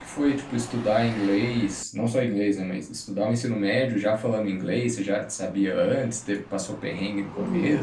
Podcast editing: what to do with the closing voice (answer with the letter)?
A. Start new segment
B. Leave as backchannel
A